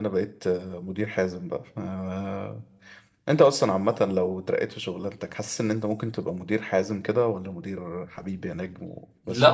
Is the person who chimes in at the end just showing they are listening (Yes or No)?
No